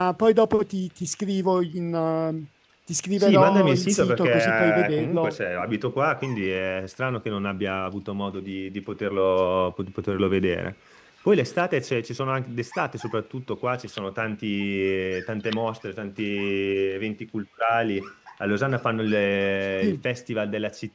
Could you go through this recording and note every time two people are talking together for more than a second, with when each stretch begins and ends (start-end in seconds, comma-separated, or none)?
3.2-5.3